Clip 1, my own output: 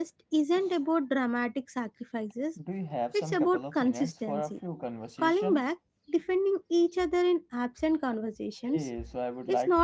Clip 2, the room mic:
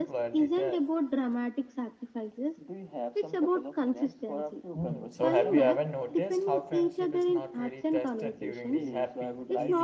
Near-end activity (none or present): present